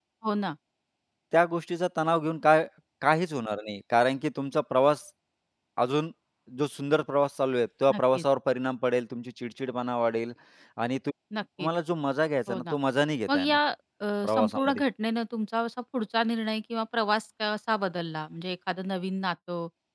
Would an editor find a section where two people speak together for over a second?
No

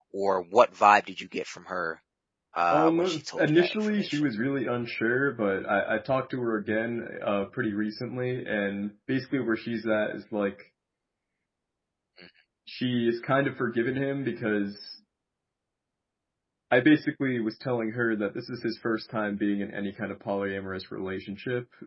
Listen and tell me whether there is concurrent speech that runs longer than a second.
Yes, from 2.7 s

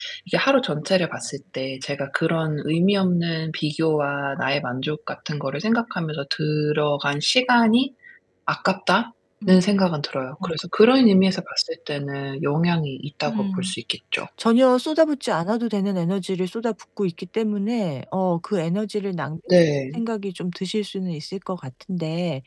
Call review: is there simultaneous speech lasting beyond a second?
No

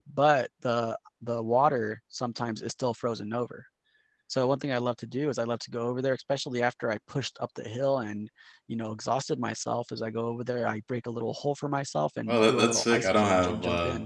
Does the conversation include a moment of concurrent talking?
Yes, from 12.3 s

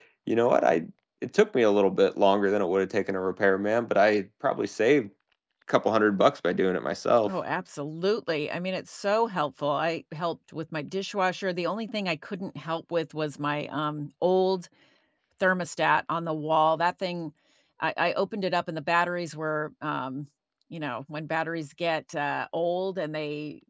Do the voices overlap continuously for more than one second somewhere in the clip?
No

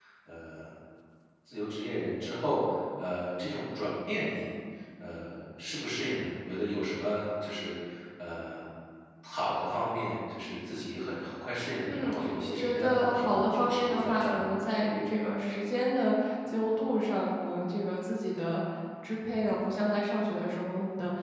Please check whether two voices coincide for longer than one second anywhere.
Yes, from 11.9 s

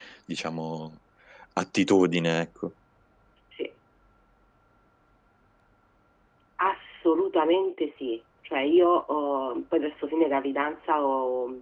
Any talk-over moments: No

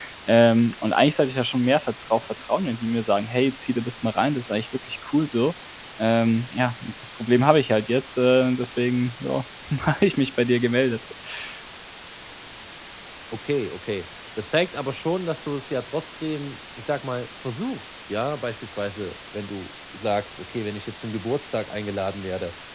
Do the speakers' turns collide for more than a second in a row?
No

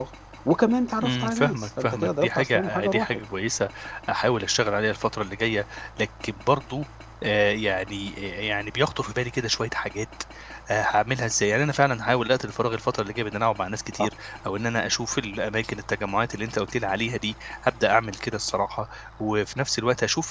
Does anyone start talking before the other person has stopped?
Yes, from 1.0 s

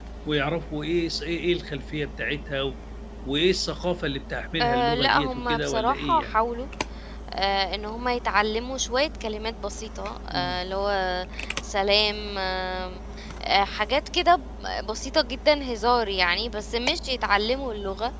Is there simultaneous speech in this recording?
Yes, from 4.6 s

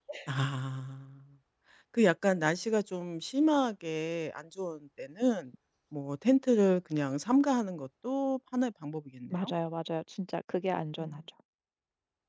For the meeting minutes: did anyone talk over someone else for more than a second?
No

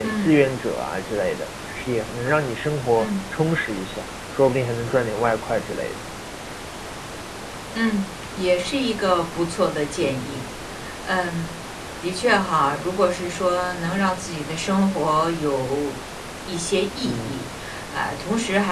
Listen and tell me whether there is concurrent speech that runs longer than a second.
No

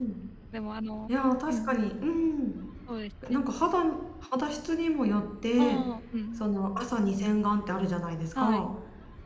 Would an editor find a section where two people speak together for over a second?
No

